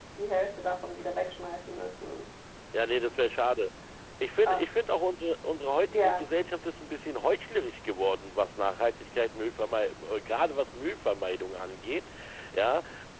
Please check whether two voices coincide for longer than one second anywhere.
No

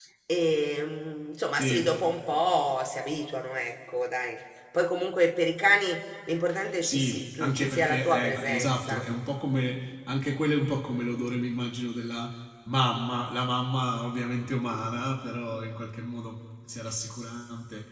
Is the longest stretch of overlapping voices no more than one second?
No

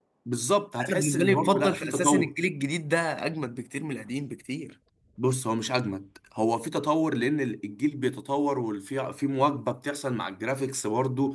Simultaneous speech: Yes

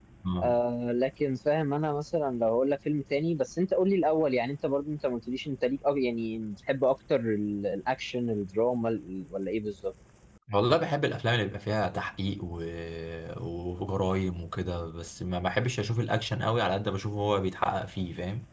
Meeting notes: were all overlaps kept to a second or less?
Yes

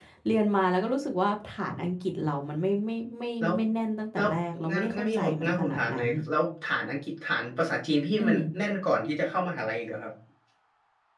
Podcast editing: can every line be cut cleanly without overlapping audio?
No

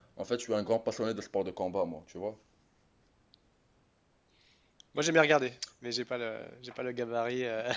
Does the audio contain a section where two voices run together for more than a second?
No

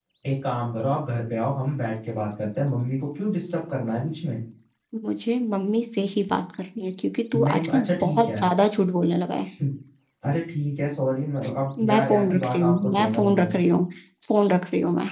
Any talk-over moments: Yes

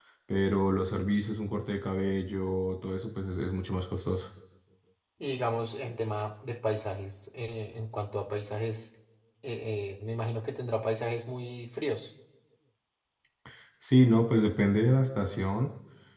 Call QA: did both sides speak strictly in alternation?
Yes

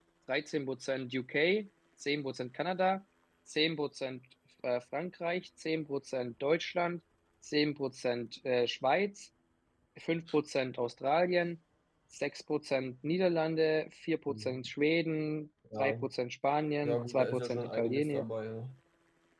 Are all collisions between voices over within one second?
No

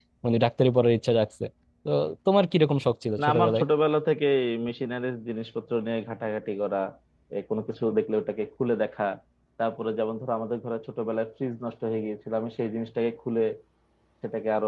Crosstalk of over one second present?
No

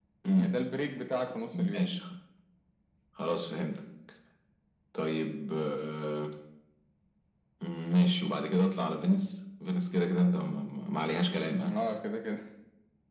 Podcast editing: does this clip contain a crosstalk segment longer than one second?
No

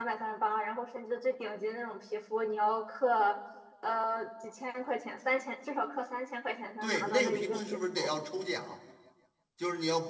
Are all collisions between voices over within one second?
No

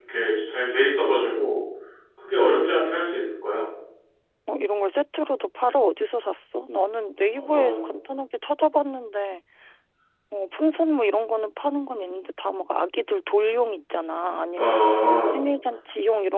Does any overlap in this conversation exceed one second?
No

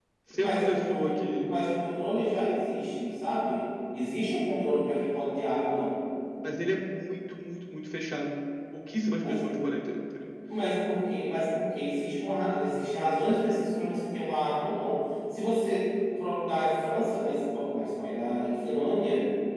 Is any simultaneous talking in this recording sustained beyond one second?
Yes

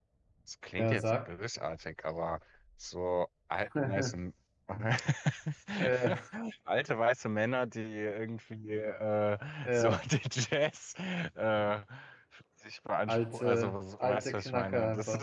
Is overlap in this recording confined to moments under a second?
No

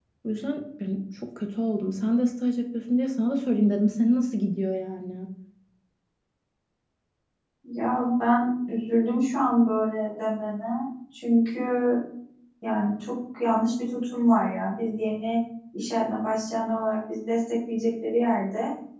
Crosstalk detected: No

